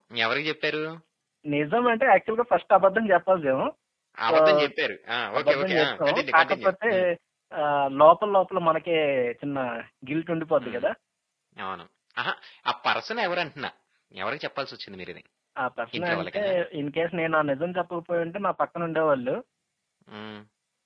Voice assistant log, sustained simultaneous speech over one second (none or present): present